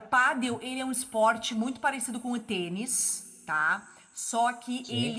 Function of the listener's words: listening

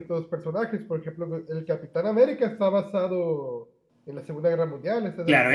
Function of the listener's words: taking over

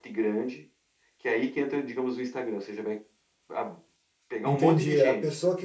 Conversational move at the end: taking over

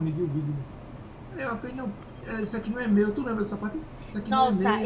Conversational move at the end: taking over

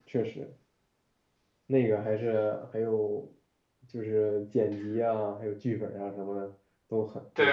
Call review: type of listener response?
taking over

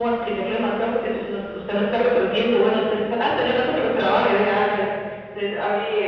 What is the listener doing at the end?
taking over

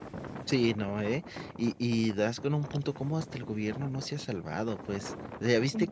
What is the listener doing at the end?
listening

